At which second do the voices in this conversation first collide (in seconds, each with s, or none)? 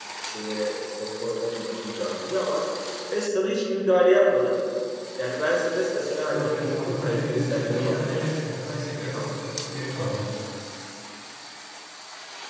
6.3 s